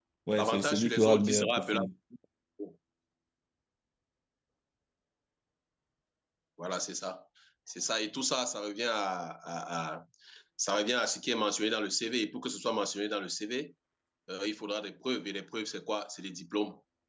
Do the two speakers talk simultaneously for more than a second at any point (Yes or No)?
Yes